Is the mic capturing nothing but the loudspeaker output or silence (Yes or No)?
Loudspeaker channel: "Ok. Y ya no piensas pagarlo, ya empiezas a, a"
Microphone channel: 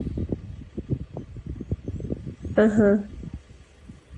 No